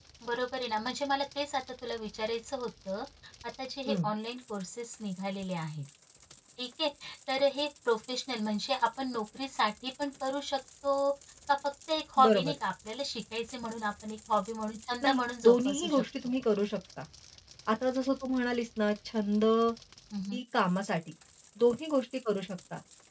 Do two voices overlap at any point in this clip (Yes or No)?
Yes